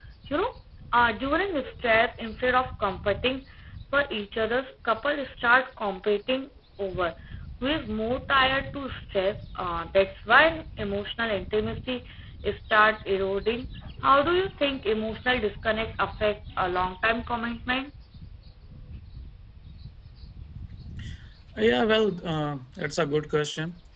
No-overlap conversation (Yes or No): Yes